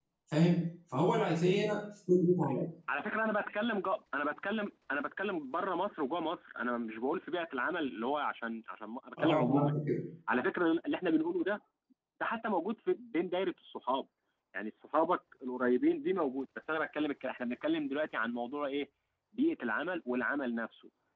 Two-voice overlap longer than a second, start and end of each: none

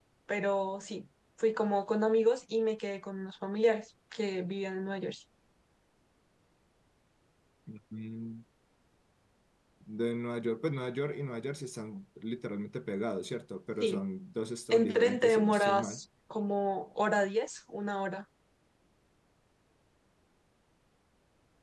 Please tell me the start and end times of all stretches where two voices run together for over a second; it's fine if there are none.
14.7-16.0

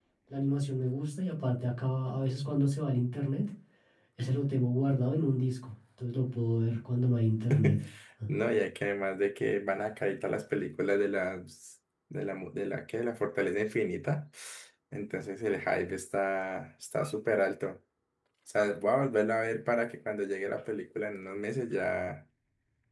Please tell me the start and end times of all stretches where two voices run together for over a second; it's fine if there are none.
none

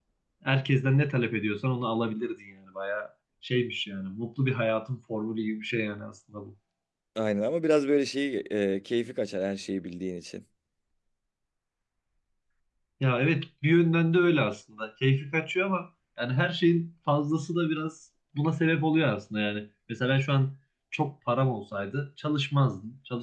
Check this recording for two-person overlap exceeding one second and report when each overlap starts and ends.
none

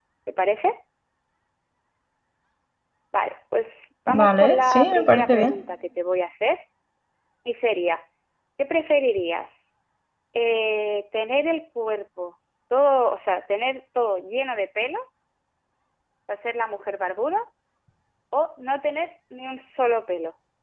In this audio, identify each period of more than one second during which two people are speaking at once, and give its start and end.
4.1-5.5

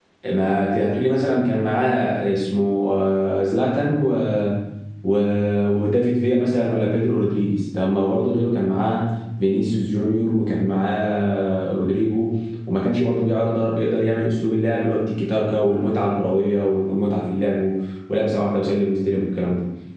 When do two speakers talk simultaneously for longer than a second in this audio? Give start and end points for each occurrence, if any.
none

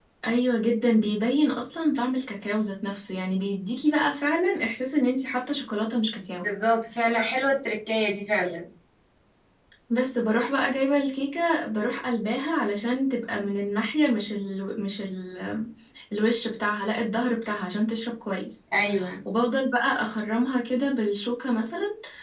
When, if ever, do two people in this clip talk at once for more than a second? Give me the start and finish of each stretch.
none

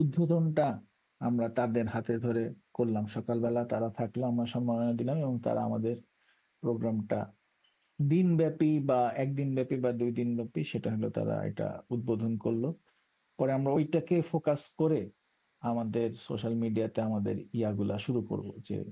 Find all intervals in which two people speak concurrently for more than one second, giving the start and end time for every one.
none

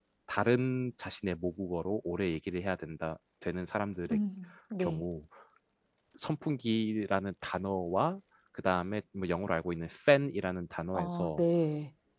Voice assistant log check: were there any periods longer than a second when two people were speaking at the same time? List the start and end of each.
none

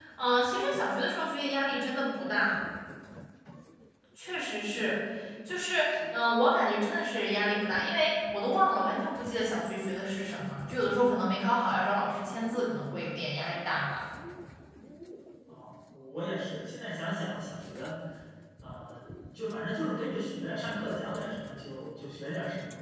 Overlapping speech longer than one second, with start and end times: none

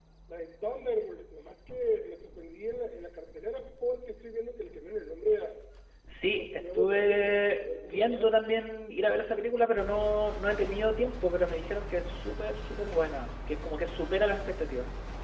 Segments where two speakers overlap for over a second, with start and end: 6.3-8.3

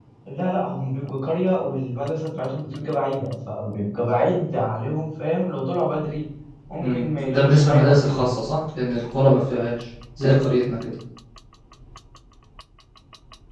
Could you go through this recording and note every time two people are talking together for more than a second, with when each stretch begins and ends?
6.8-8.3

